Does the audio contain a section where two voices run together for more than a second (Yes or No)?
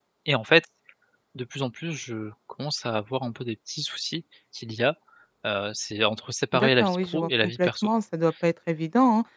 Yes